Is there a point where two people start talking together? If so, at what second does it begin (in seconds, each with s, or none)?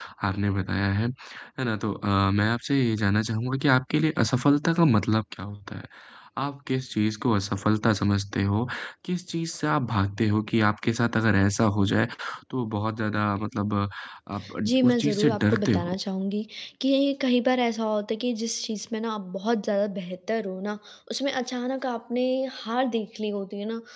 14.7 s